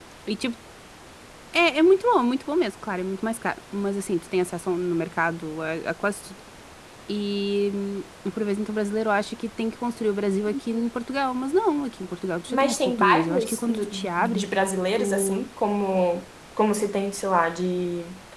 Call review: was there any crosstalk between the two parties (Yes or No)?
Yes